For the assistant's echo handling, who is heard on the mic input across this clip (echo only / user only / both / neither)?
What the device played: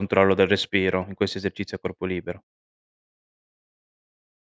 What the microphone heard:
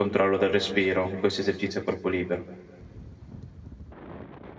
echo only